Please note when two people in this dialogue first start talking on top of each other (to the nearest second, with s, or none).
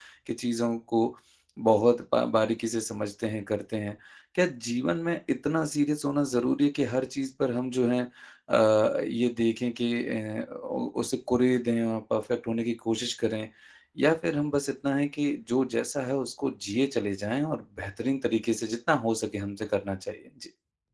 none